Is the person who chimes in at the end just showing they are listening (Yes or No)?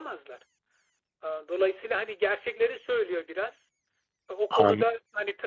Yes